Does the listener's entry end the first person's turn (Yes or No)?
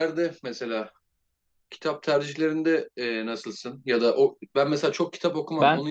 No